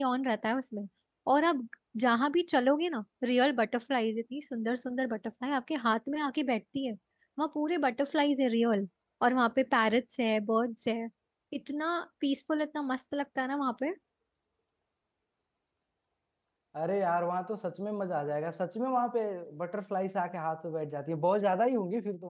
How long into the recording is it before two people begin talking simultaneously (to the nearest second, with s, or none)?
none